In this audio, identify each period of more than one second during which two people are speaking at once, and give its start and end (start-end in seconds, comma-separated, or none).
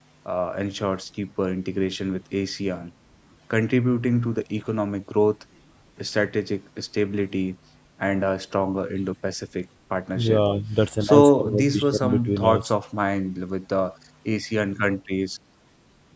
11.0-12.7